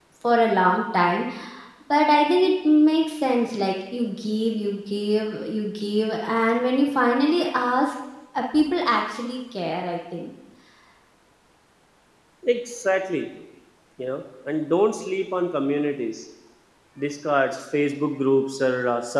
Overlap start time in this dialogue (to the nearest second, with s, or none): none